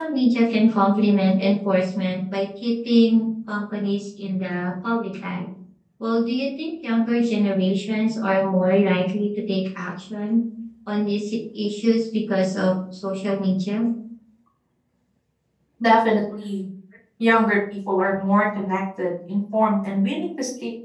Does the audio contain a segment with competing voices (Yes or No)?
No